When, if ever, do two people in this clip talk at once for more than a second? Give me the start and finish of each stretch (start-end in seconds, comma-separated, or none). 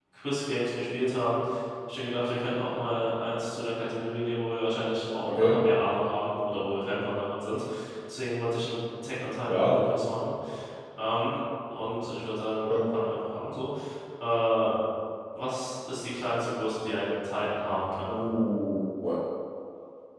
none